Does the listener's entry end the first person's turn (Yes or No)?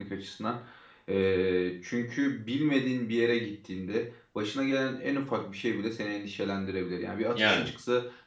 No